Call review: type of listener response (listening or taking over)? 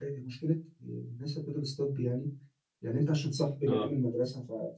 listening